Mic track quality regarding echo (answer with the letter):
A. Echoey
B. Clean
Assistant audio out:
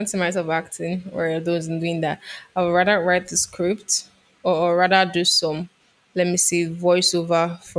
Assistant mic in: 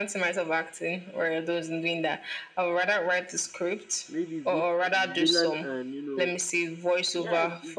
A